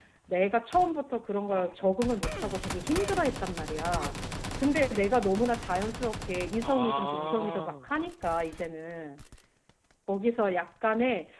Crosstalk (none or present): present